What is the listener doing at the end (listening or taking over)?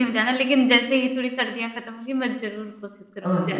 taking over